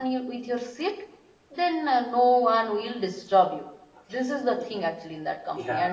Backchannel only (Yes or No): No